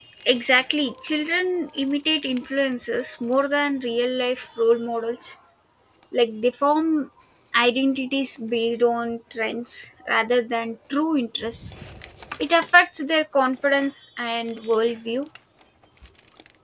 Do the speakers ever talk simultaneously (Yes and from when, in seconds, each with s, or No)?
No